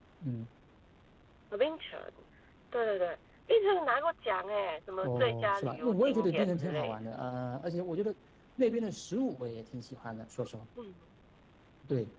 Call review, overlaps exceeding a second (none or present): present